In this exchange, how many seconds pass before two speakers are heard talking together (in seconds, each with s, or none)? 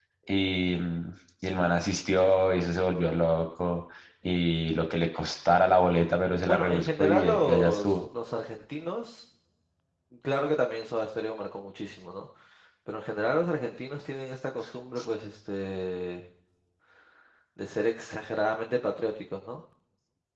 6.4 s